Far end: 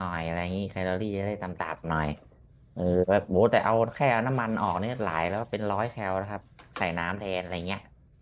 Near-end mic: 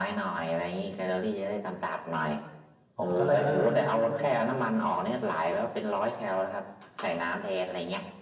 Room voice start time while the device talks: 3.0 s

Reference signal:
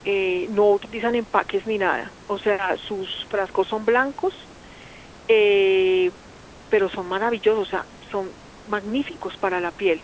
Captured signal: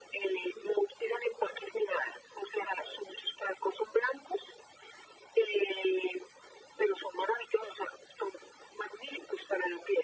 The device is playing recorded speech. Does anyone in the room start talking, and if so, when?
none

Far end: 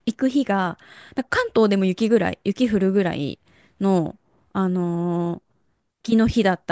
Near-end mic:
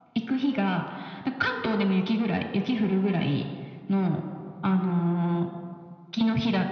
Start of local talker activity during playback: none

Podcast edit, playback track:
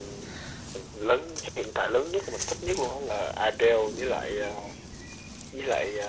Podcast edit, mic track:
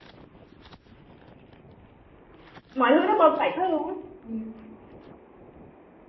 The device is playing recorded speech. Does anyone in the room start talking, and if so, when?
2.7 s

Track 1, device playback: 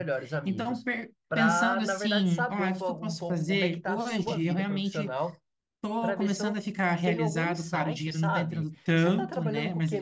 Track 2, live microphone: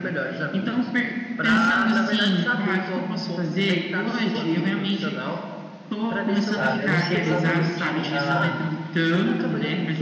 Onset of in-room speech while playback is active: 6.4 s

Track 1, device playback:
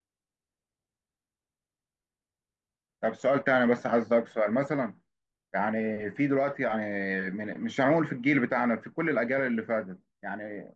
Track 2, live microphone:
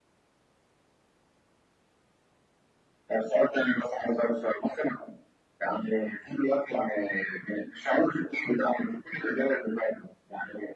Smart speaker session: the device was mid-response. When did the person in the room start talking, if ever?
none

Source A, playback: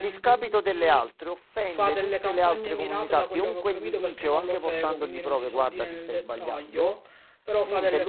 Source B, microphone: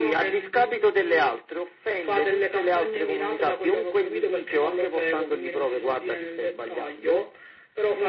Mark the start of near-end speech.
none

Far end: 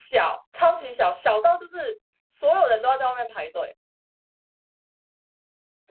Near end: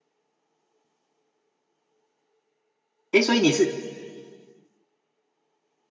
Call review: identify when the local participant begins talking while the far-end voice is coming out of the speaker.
3.1 s

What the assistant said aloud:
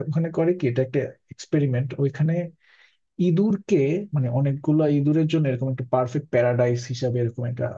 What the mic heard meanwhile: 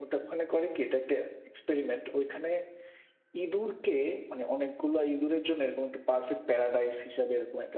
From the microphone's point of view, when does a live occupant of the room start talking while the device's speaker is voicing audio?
none

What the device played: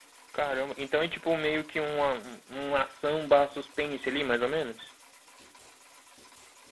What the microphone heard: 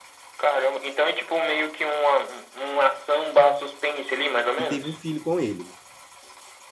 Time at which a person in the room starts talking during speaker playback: 4.6 s

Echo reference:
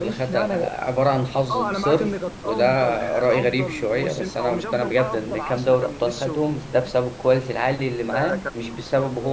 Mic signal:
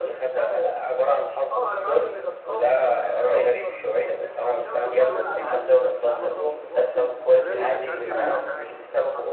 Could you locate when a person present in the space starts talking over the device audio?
4.8 s

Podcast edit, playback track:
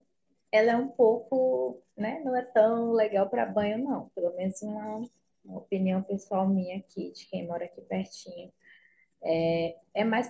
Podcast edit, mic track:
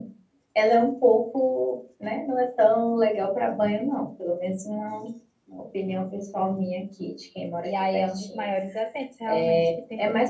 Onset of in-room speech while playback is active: 7.6 s

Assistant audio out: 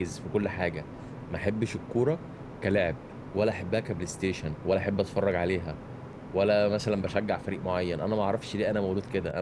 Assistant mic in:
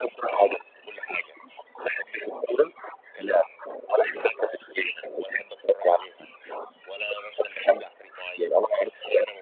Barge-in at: none

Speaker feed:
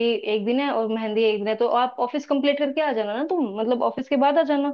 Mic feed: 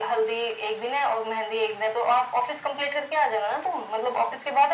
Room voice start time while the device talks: none

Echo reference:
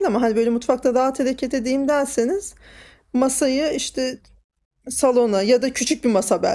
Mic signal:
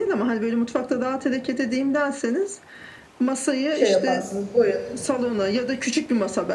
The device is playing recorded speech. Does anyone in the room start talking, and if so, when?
3.7 s

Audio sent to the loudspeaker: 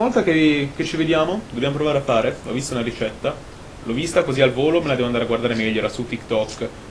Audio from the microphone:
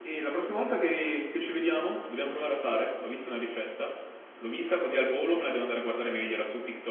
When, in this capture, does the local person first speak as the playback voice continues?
none

